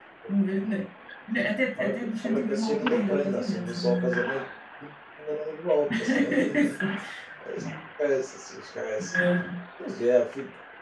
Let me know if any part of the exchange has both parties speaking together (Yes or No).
Yes